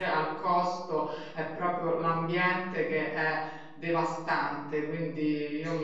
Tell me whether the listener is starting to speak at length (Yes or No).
Yes